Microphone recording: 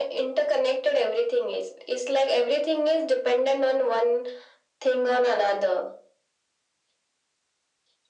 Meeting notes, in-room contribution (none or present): none